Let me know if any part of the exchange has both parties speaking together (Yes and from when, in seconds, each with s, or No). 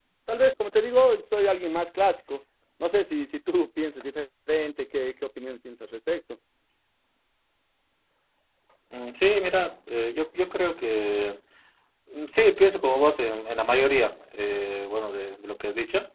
No